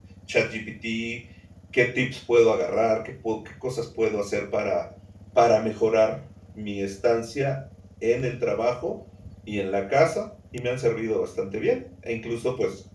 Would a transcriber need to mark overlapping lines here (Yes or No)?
No